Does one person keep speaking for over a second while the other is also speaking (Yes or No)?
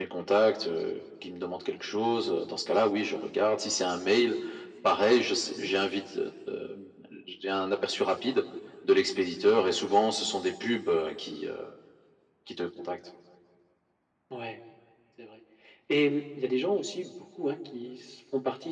No